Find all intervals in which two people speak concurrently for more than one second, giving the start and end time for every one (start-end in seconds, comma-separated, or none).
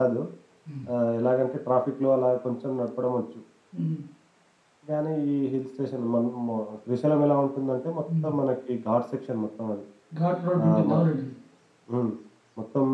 none